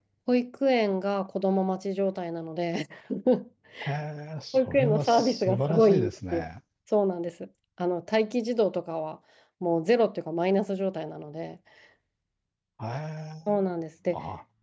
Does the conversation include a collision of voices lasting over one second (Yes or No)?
Yes